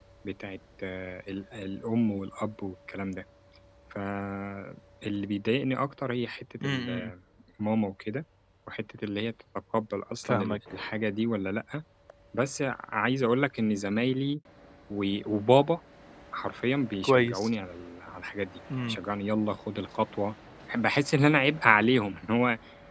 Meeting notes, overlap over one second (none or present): none